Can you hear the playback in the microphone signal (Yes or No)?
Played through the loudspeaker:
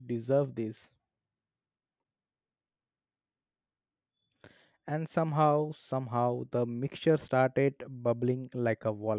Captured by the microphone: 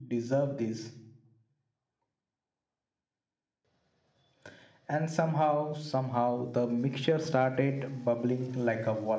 Yes